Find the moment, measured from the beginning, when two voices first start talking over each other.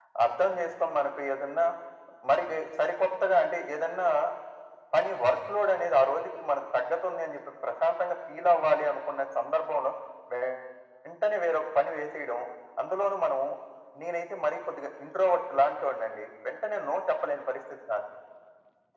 none

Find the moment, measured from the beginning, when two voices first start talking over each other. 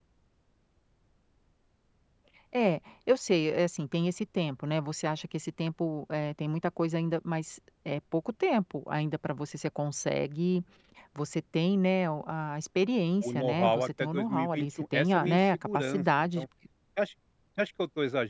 13 s

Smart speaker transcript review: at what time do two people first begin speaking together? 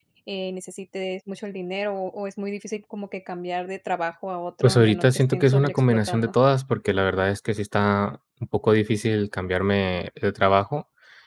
5 s

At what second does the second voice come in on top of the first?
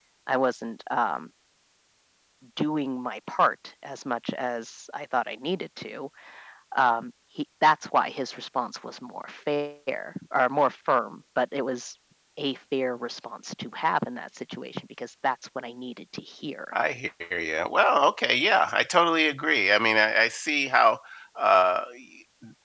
none

